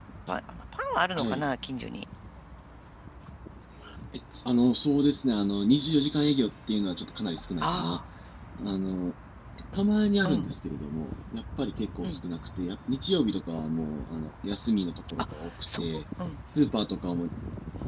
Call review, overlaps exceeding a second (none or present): none